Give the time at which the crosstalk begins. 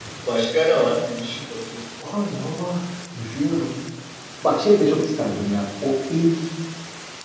none

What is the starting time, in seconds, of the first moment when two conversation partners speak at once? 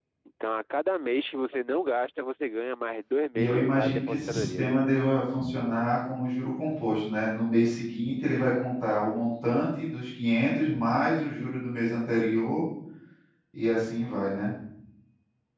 3.4 s

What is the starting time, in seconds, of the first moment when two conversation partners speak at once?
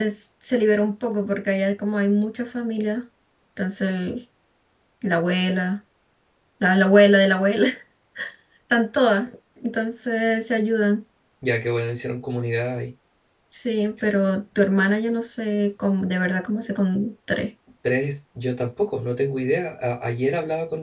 none

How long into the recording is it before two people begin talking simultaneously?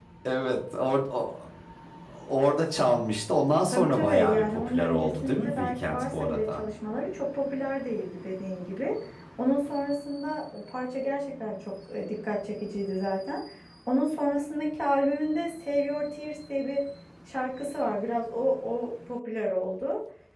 3.7 s

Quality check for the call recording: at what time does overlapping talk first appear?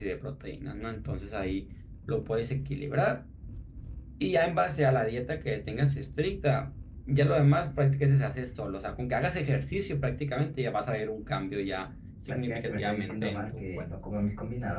12.2 s

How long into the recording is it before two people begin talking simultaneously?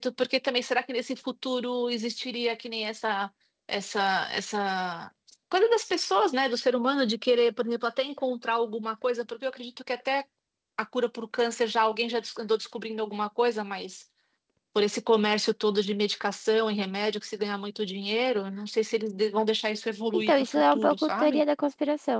20.1 s

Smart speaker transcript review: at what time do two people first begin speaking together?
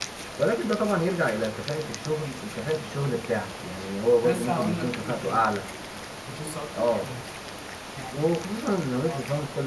4.2 s

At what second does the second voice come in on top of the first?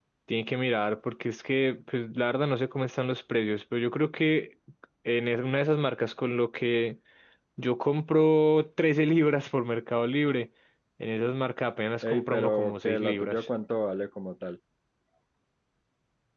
12.0 s

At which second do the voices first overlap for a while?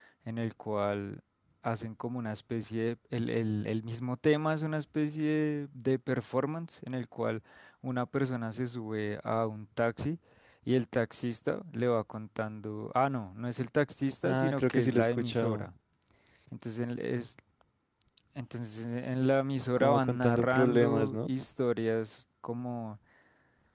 14.2 s

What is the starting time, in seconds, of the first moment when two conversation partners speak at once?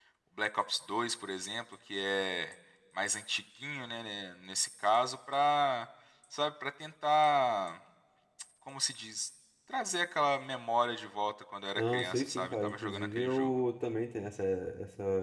11.8 s

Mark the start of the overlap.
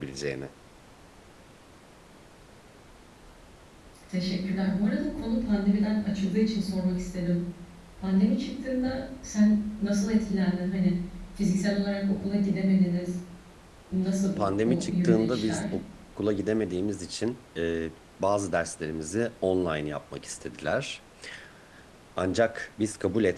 14.4 s

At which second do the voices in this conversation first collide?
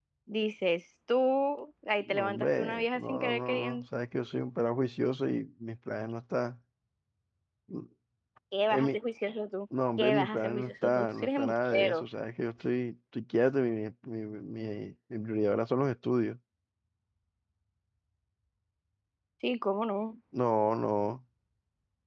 2.1 s

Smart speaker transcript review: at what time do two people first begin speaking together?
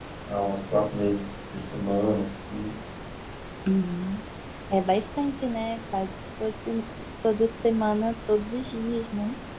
none

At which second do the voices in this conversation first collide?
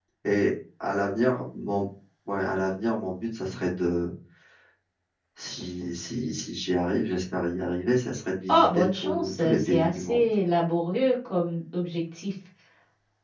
8.5 s

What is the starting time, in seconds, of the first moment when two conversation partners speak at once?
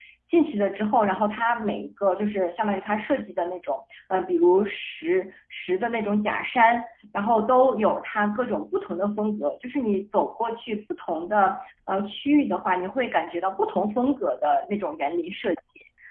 none

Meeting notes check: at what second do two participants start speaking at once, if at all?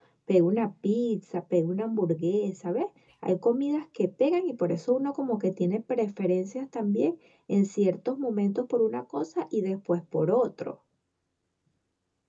none

